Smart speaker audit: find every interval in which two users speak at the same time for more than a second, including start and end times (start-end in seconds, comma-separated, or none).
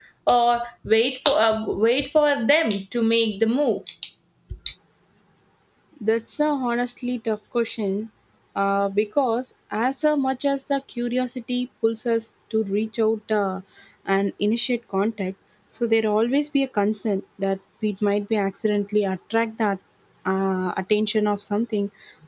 none